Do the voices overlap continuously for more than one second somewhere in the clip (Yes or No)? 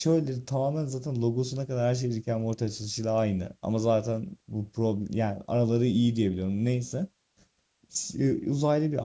No